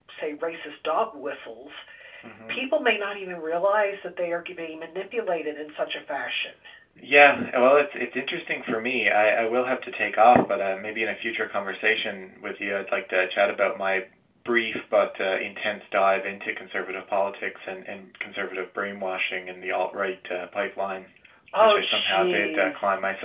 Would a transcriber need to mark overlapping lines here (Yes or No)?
Yes